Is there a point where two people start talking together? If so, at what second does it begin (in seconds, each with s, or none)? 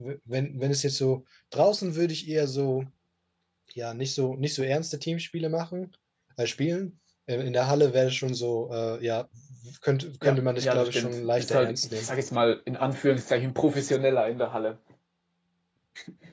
10.2 s